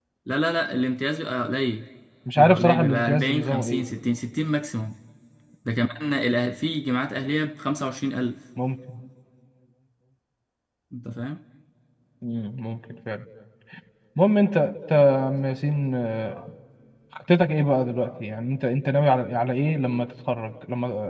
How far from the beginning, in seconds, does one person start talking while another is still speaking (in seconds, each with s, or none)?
2.4 s